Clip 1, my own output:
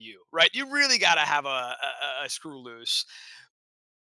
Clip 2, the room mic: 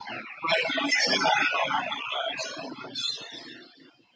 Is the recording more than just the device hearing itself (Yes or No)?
No